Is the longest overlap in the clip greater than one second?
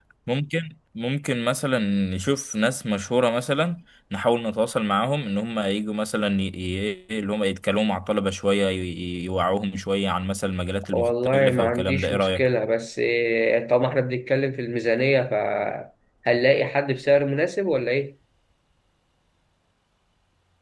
Yes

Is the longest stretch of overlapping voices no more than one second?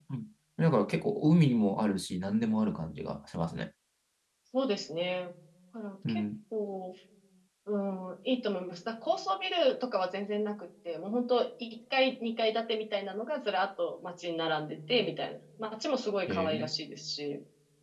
Yes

